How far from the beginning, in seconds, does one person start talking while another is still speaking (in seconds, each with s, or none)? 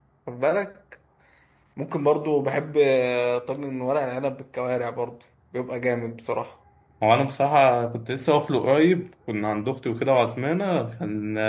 none